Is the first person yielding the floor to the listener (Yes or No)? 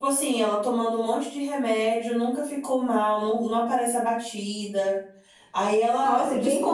Yes